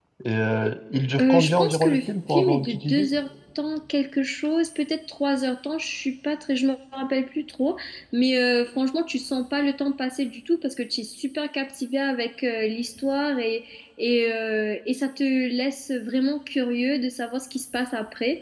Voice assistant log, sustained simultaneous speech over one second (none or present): present